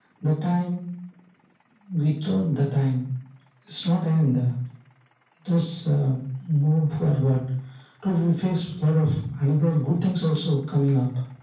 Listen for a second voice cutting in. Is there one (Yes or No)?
No